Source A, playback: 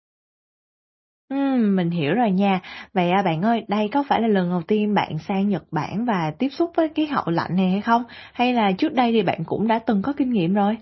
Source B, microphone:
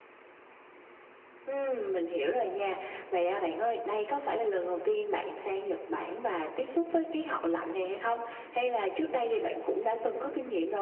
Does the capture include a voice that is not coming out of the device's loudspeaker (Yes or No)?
No